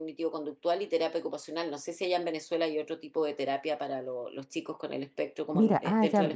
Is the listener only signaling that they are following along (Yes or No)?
No